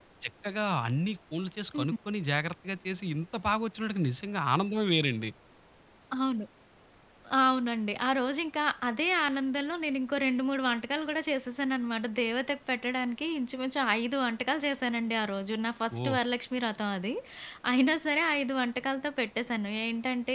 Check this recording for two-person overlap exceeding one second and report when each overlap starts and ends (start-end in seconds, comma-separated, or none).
none